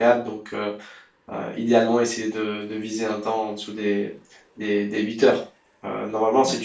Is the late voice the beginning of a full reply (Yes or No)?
No